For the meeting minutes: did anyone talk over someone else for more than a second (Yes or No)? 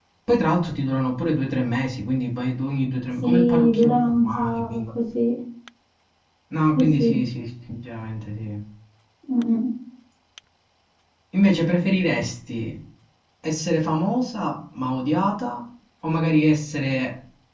Yes